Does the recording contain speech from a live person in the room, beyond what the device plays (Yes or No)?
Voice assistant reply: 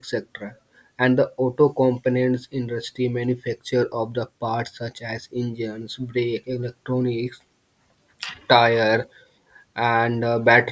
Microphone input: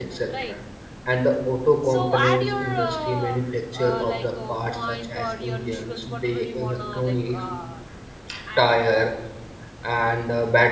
Yes